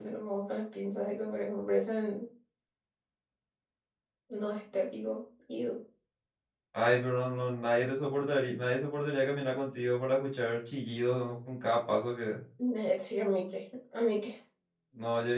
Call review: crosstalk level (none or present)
none